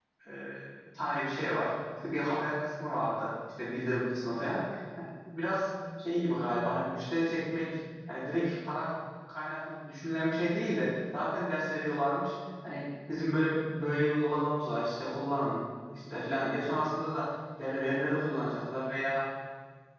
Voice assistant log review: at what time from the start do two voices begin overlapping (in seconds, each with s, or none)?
none